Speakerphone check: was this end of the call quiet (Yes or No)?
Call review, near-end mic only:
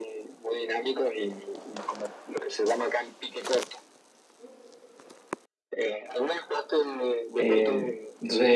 No